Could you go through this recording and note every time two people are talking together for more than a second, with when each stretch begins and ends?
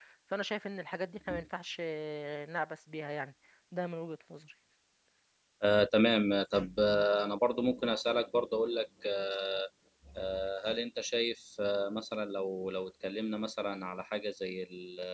none

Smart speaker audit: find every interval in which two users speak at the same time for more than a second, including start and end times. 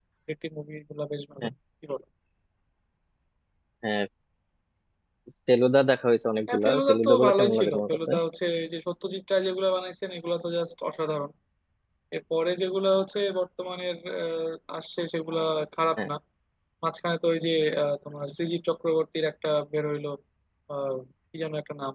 6.5-8.1

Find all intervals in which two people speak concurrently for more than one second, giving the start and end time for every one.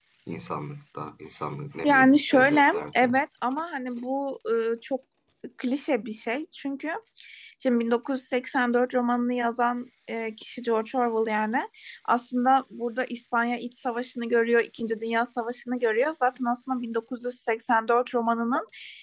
1.8-3.1

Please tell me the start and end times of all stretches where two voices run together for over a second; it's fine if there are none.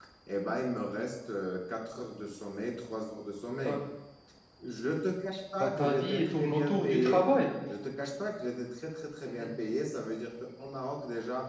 5.6-7.2

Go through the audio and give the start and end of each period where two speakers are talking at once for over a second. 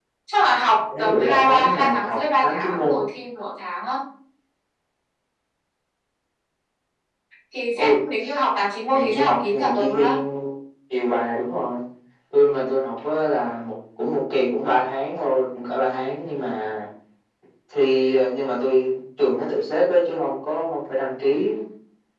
1.0-3.0, 8.9-10.1

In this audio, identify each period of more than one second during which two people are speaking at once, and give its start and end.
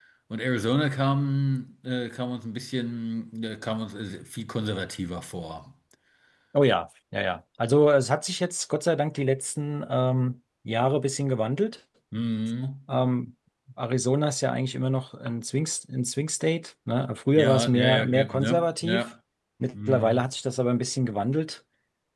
17.4-19.0

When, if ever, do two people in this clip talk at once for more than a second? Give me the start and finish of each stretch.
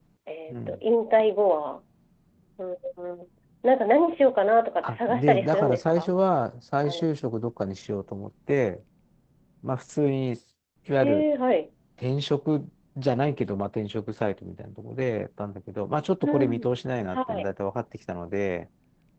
4.8-6.1

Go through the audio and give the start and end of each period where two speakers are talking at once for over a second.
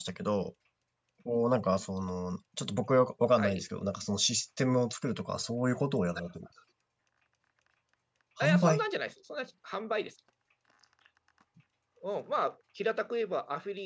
none

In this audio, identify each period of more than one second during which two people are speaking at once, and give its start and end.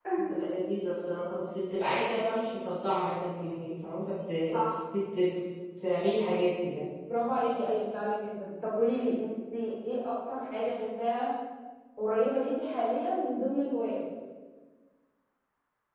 none

